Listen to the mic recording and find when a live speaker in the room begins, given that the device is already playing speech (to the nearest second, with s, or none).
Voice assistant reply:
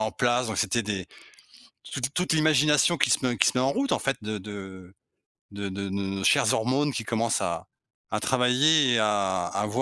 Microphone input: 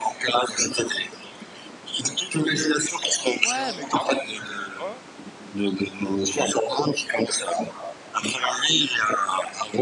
3 s